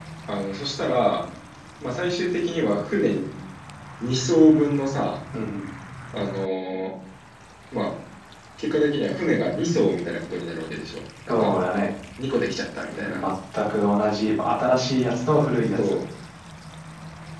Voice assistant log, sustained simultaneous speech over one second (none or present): none